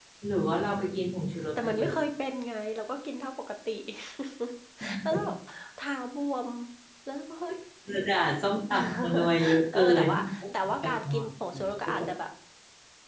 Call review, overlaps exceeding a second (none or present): present